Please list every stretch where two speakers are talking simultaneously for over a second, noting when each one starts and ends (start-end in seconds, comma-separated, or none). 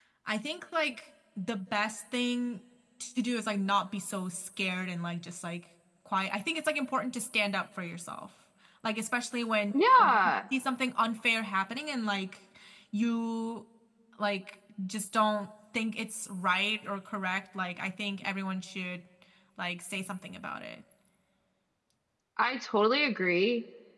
none